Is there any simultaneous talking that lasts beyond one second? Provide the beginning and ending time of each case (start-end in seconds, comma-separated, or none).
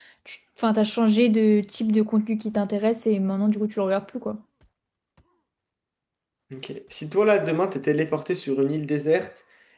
none